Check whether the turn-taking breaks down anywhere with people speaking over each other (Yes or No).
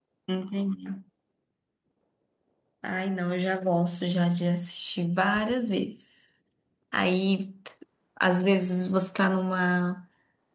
No